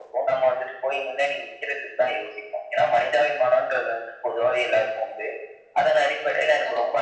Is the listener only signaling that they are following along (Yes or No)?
Yes